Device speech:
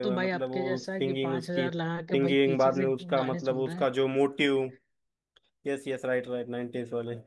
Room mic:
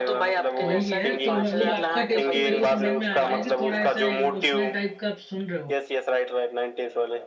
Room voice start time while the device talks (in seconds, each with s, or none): 0.6 s